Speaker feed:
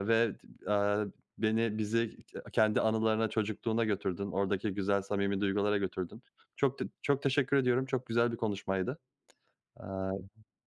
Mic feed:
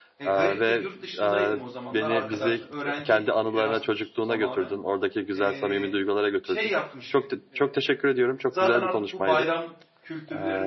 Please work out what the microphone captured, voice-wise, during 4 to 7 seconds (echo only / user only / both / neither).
both